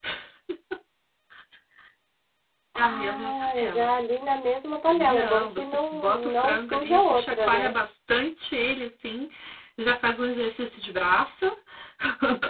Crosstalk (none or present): present